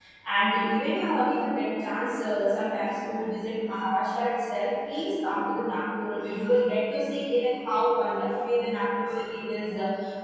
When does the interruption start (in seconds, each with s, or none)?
none